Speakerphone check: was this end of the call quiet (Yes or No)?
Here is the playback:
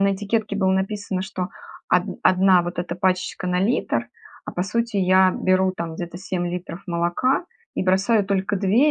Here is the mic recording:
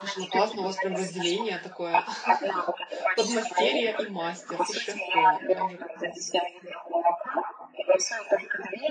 No